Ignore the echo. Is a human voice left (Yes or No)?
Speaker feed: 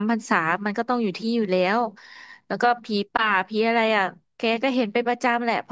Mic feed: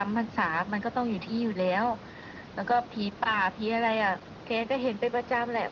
No